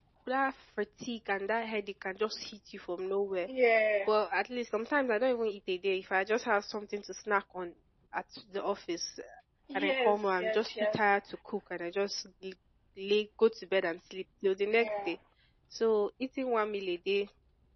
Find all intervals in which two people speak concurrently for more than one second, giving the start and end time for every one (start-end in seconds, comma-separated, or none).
9.8-11.0